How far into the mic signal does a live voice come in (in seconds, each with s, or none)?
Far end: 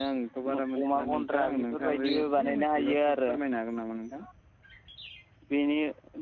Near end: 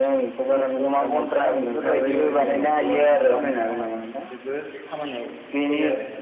1.9 s